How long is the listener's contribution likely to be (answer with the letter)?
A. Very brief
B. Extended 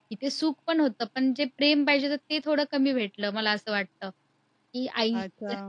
B